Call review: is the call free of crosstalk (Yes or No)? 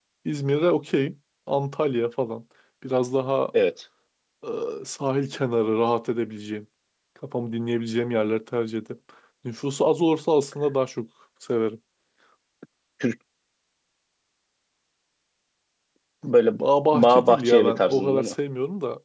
No